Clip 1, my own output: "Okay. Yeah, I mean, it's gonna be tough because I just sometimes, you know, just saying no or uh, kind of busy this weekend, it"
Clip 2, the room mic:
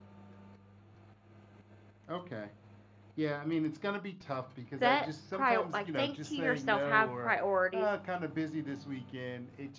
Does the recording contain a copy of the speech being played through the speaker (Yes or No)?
Yes